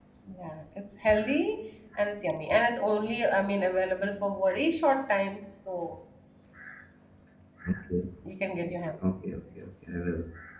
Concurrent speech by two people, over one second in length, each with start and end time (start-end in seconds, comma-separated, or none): none